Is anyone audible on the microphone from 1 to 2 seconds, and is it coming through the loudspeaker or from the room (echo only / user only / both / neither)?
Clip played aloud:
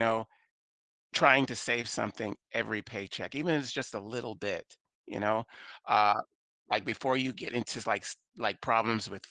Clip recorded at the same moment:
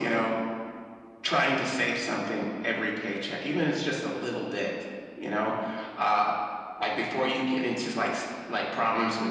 echo only